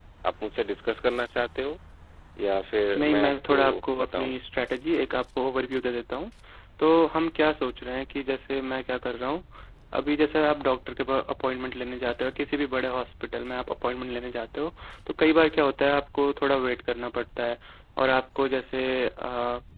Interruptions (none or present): present